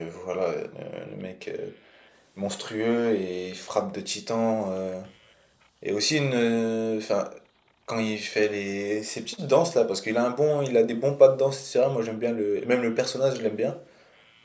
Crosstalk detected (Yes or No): No